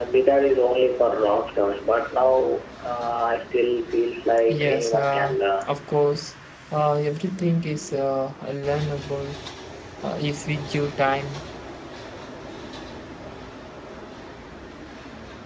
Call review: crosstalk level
present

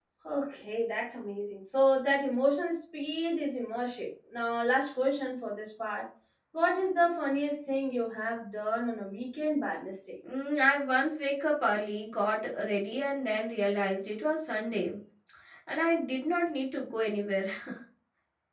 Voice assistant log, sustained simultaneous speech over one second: none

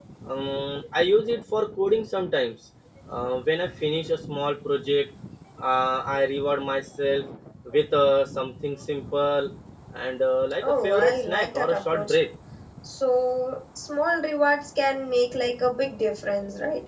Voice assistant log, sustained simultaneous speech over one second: present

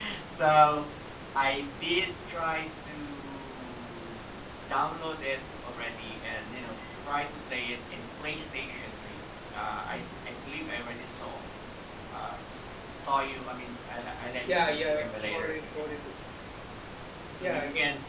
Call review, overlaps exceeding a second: present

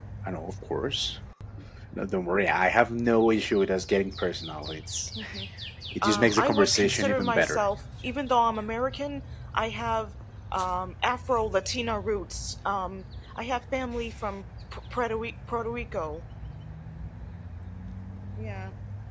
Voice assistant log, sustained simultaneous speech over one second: present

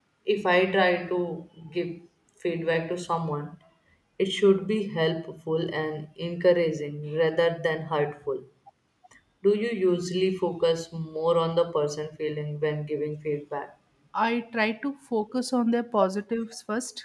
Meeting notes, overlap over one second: none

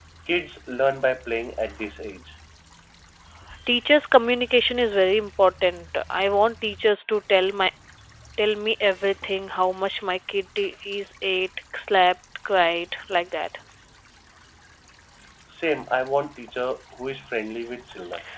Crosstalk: none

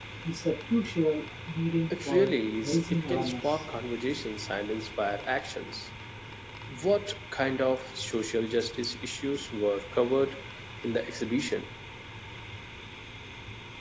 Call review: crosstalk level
present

